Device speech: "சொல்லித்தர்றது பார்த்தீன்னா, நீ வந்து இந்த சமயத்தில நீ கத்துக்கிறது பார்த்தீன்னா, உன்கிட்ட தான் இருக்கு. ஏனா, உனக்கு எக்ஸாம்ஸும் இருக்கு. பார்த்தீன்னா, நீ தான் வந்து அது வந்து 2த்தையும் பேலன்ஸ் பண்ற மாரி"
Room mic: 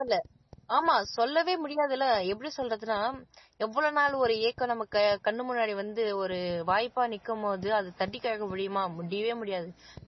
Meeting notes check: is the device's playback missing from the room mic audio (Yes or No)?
Yes